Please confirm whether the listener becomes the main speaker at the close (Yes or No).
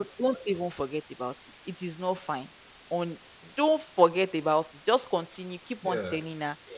No